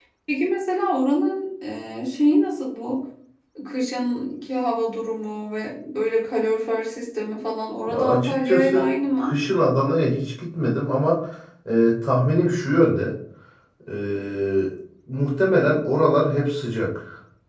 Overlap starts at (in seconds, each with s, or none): 7.9 s